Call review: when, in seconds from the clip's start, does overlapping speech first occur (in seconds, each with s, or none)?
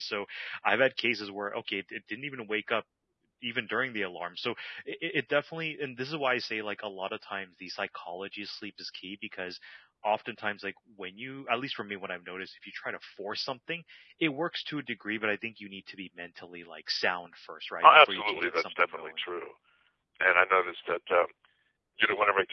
17.8 s